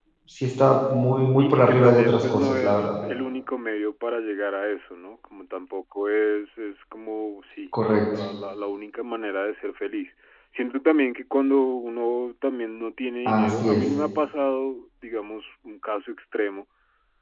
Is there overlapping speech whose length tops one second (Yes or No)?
Yes